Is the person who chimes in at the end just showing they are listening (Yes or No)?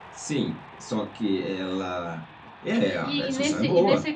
No